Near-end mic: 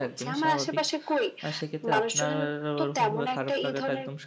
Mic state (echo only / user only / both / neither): both